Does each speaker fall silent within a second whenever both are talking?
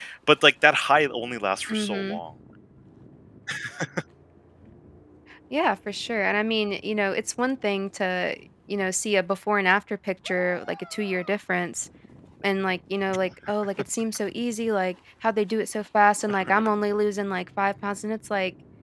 Yes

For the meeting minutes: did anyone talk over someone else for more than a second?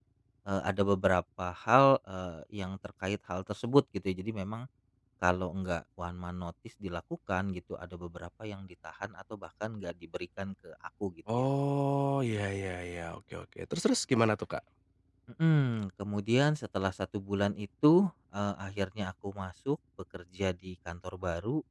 No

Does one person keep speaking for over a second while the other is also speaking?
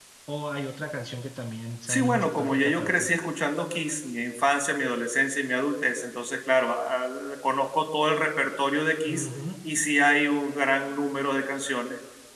Yes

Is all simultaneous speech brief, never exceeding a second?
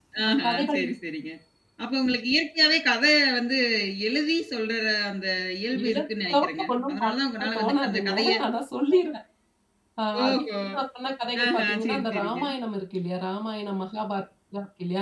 No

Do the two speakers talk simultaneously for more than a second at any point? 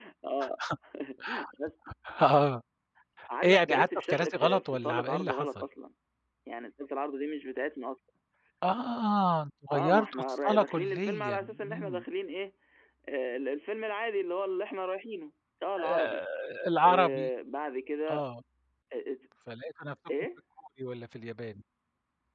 Yes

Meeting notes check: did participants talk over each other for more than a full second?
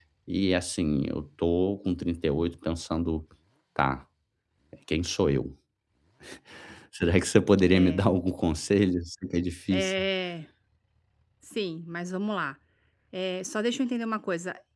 No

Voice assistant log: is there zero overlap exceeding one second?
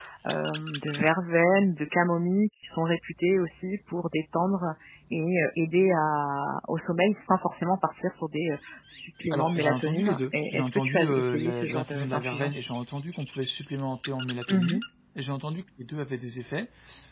No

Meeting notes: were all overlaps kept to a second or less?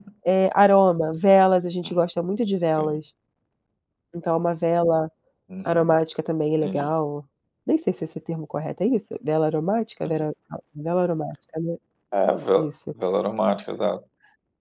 Yes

